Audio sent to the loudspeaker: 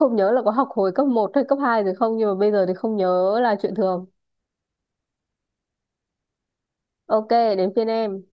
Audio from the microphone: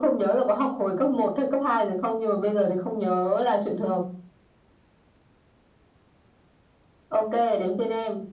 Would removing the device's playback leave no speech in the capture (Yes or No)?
Yes